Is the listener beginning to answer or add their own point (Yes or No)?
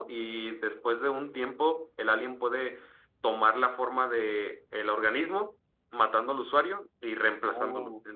No